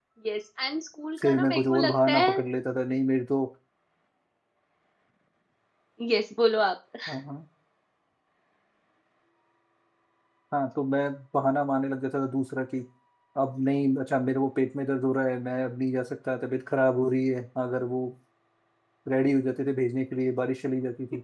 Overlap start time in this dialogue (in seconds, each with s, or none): 1.2 s